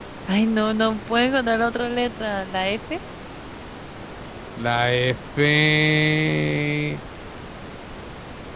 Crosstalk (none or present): none